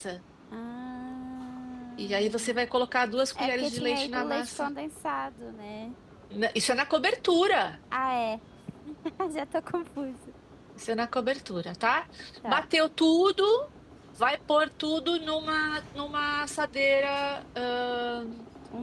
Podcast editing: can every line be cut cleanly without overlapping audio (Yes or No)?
No